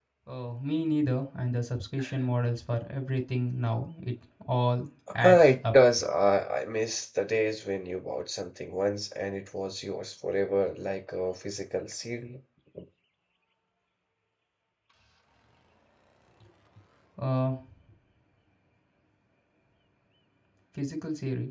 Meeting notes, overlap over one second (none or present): none